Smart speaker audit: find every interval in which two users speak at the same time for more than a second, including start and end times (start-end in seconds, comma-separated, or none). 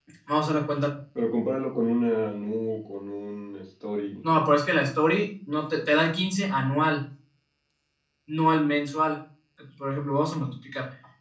none